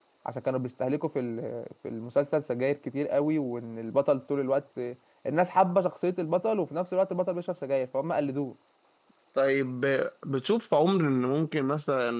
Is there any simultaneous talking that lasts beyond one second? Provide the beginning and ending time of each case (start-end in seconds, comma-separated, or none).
none